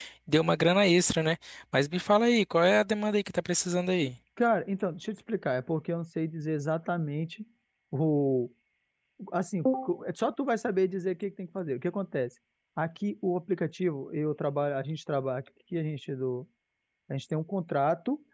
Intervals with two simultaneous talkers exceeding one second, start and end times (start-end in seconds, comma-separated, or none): none